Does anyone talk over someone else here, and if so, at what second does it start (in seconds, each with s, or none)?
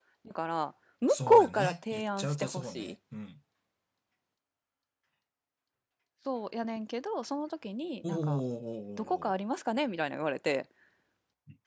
1.1 s